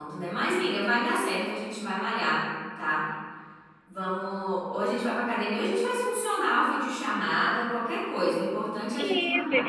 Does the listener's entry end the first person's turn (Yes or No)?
Yes